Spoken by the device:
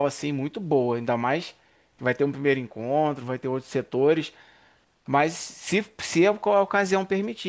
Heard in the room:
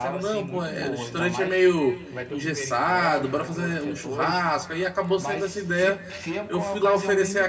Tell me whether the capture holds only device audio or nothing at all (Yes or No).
No